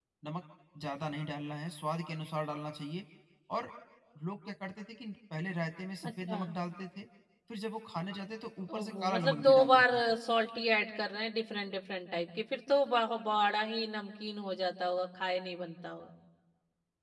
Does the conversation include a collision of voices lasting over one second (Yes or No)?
Yes